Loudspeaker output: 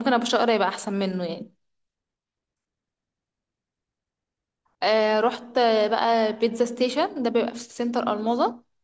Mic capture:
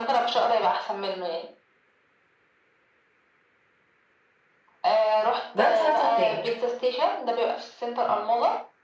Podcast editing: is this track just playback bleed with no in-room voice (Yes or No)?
No